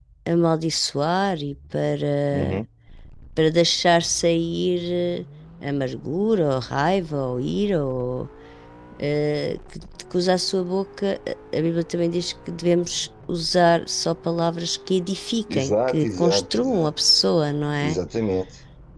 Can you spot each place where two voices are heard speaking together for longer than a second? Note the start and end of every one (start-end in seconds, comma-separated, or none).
15.5-16.9